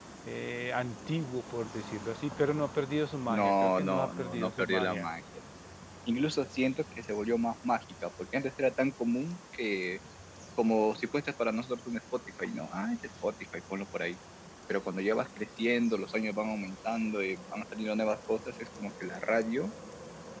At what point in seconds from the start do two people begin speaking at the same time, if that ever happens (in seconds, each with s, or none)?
3.3 s